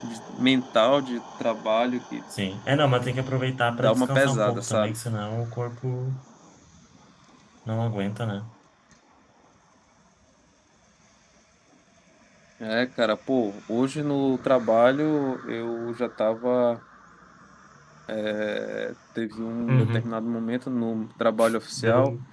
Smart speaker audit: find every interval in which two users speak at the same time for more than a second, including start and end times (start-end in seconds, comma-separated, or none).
3.7-5.0